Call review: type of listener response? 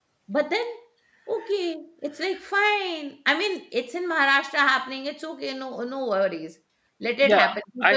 taking over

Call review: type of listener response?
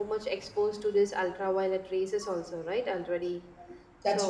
listening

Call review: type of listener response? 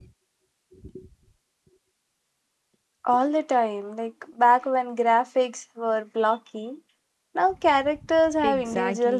taking over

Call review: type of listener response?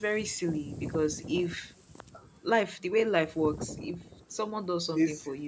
listening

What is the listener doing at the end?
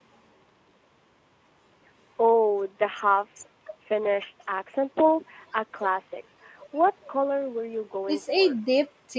taking over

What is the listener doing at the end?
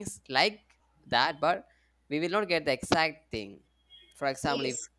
taking over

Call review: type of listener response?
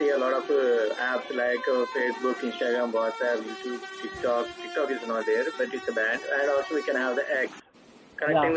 listening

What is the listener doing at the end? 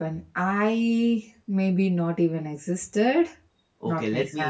taking over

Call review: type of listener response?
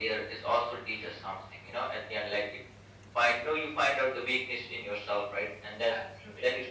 listening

